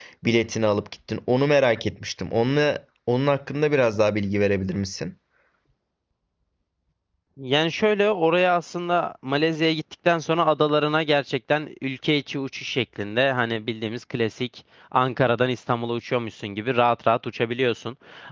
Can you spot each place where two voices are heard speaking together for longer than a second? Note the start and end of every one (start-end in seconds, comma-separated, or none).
none